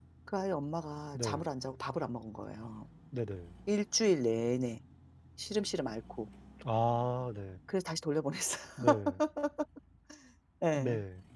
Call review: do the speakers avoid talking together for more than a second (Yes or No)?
Yes